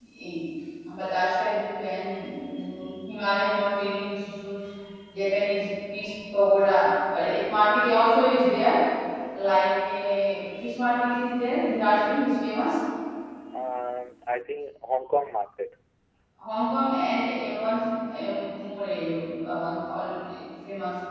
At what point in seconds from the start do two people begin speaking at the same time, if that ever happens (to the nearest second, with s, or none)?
none